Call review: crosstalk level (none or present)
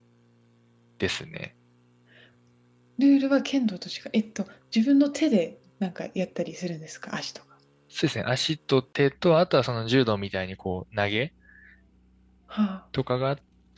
none